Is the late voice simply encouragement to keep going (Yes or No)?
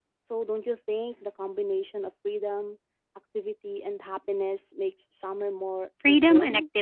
No